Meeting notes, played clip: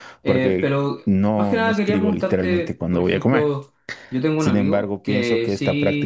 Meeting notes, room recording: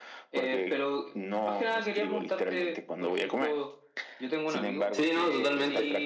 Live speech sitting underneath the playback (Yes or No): No